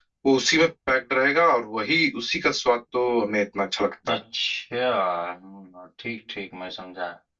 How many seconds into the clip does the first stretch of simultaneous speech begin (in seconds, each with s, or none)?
none